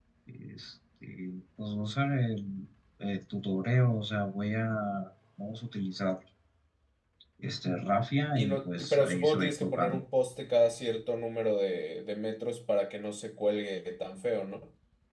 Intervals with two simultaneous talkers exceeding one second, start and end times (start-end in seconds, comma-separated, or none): 8.3-10.0